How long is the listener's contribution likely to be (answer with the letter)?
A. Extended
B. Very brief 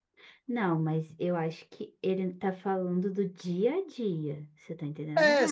A